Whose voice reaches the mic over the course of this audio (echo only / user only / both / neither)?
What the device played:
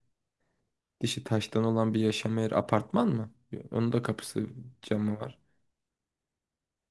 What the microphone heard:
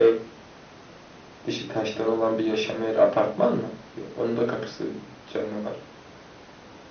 echo only